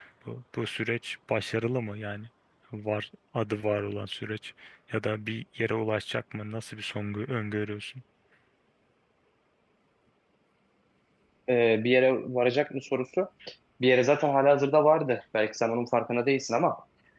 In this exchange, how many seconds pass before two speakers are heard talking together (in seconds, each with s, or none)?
none